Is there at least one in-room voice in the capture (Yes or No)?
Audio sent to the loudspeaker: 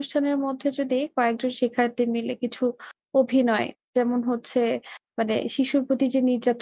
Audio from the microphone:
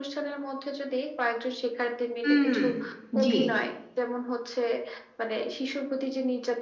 Yes